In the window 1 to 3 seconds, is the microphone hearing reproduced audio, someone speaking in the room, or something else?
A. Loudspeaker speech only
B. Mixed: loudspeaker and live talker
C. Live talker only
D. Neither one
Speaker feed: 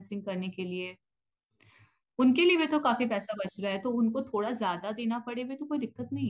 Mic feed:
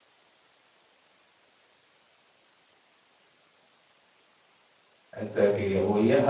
D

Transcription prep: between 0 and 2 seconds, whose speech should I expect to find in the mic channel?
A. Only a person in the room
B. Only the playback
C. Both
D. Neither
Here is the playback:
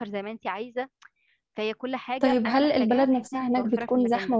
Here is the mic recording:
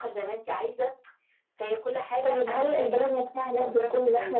B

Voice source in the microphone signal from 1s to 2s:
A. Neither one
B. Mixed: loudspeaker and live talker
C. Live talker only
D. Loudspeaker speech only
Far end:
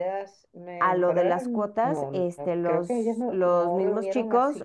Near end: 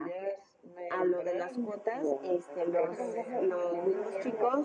D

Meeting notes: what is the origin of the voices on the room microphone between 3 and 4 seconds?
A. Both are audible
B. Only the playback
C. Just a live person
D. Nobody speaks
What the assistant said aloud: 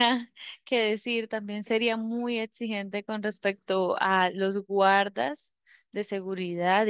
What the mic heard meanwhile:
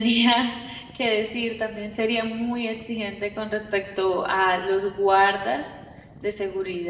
B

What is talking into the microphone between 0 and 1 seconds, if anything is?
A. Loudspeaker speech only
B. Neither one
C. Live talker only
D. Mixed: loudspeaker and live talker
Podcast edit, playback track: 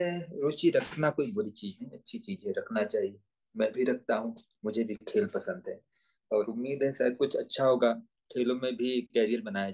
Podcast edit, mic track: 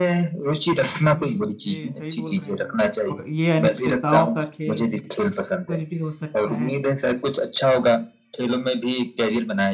A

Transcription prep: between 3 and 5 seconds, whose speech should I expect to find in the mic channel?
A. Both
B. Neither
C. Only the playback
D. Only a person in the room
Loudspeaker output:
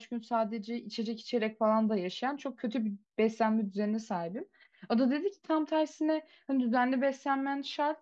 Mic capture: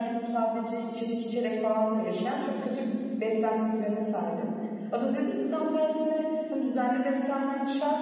C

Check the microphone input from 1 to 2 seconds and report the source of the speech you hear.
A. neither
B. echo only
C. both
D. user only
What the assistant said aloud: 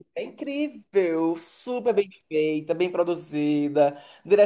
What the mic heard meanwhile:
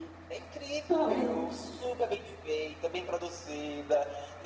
C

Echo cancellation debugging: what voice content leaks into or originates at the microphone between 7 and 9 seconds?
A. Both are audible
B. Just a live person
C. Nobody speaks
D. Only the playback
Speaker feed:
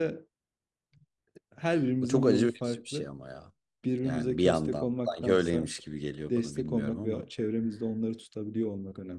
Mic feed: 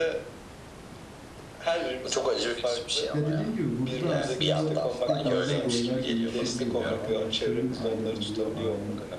A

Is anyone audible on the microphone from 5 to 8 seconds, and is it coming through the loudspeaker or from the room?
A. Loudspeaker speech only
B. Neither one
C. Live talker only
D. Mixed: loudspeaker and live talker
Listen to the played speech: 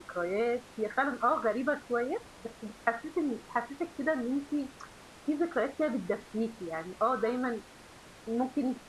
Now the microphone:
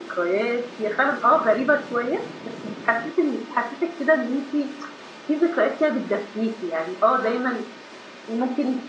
A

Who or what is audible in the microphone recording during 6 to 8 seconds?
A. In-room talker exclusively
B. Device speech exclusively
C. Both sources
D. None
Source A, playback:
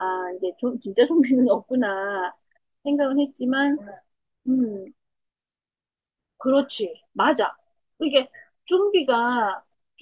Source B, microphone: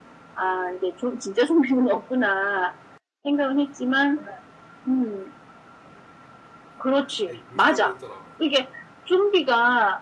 C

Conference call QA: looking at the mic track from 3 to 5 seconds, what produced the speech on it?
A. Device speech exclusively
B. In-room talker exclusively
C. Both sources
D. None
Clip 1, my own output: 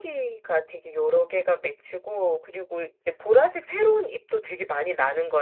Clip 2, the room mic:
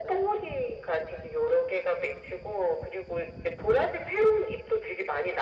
A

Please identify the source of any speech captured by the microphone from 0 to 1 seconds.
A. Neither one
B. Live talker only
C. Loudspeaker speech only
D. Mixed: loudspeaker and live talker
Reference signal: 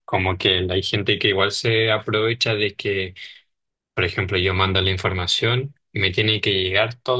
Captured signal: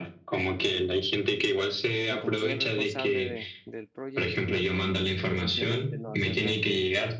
C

